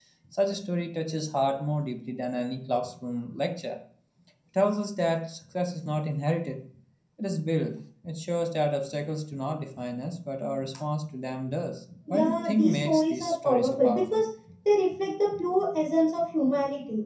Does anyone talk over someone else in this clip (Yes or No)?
Yes